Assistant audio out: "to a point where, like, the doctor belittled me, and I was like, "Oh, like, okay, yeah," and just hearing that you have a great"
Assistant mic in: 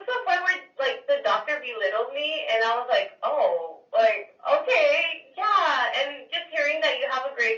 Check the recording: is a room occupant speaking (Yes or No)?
No